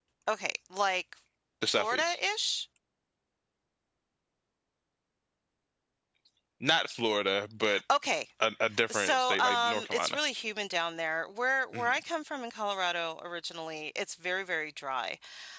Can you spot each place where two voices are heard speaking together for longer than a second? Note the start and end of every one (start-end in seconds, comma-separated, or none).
8.9-10.2